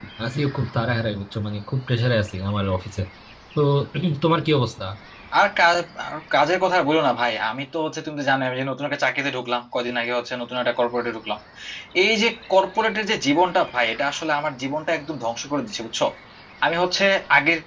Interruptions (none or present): none